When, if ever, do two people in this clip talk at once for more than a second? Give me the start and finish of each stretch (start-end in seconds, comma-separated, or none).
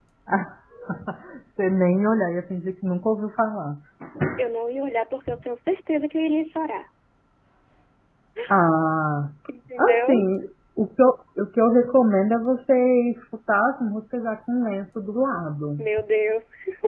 none